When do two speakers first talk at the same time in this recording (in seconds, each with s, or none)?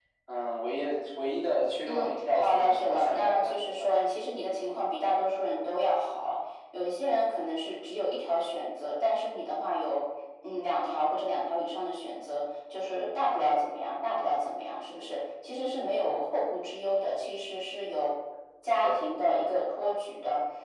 1.8 s